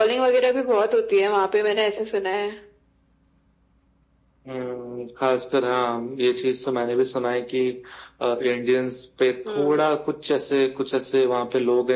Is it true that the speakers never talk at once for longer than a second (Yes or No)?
Yes